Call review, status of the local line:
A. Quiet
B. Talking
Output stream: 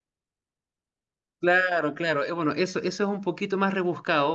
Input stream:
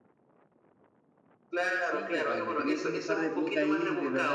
B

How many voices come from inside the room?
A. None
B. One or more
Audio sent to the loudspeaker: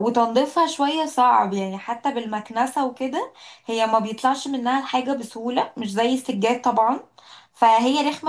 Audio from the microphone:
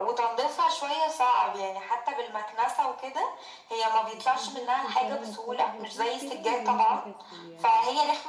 B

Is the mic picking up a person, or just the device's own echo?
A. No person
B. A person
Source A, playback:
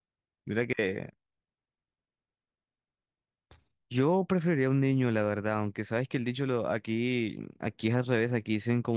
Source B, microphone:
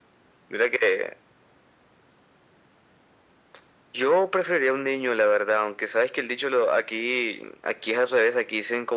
A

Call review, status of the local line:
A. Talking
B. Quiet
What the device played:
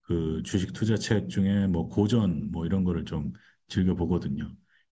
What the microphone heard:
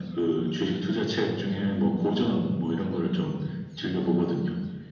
B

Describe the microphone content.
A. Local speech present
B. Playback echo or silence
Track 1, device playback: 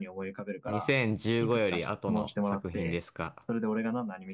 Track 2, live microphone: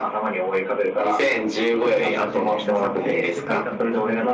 A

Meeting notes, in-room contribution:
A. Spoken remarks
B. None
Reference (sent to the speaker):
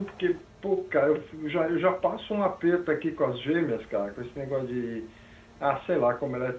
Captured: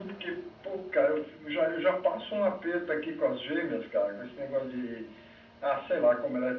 B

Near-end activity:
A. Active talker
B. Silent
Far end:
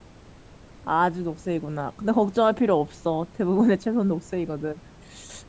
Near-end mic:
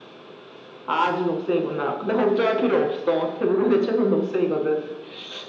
B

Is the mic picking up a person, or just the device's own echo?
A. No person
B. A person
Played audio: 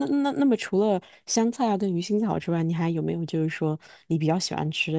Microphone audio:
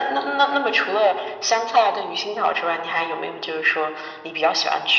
A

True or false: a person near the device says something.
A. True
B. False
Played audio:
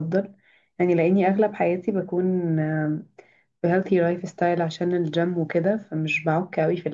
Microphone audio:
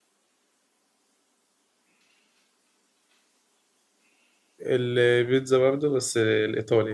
A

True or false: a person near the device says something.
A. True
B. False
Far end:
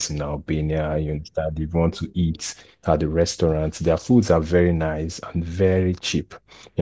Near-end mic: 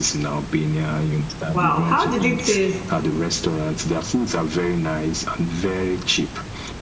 A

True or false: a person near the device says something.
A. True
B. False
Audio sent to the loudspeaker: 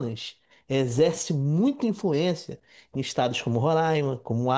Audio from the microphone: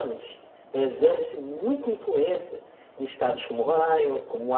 B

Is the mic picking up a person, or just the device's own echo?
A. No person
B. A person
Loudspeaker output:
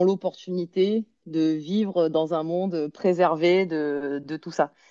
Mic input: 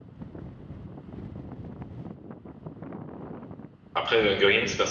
B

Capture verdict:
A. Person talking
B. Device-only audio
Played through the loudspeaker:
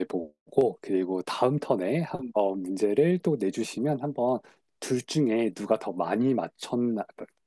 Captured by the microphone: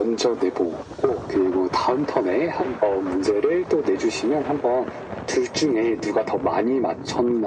B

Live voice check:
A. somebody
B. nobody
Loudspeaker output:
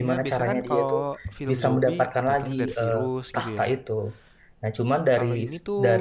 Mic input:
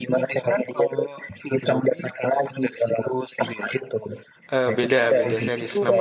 A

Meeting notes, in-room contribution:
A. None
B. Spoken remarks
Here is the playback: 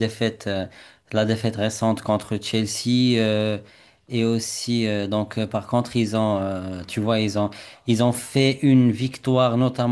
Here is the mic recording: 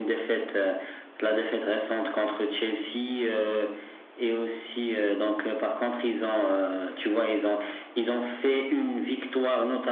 A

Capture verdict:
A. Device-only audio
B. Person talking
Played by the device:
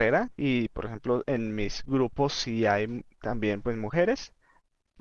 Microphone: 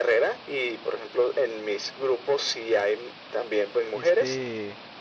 B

